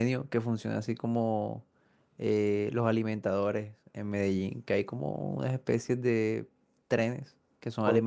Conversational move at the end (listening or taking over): listening